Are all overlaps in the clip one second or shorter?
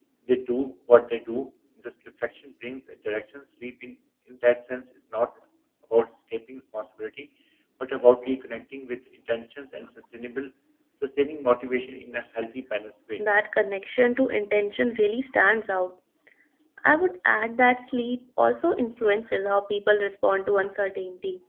Yes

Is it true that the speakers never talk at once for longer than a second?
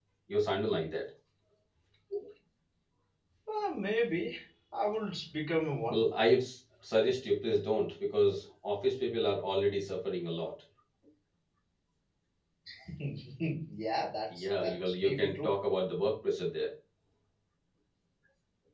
No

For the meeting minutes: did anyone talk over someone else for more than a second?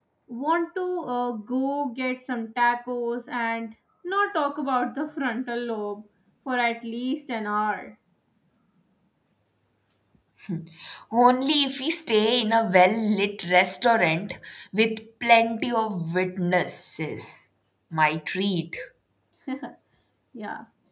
No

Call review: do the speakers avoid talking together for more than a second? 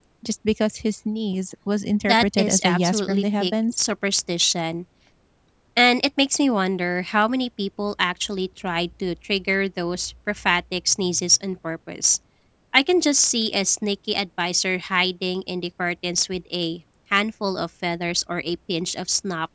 No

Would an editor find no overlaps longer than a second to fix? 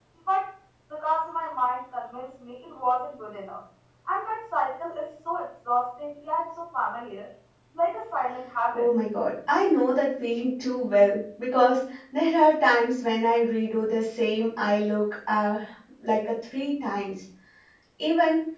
Yes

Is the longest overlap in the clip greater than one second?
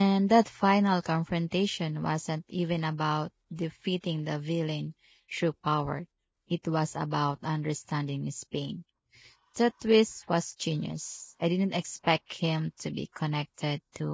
No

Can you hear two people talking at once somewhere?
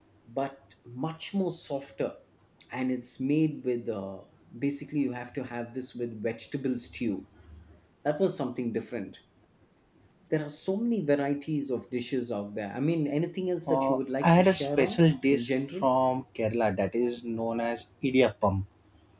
Yes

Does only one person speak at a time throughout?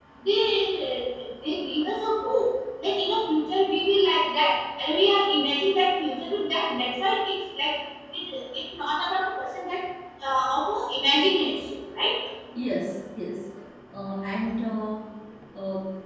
Yes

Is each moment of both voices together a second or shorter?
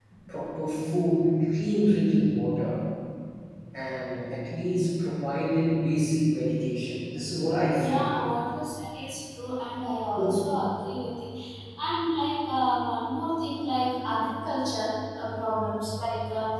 Yes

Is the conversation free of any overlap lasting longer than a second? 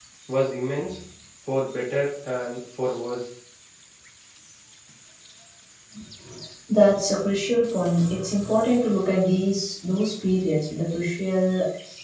Yes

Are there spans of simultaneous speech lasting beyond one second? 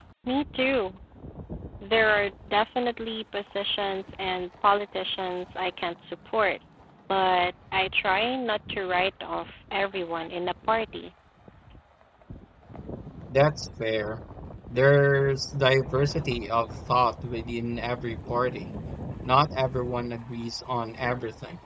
No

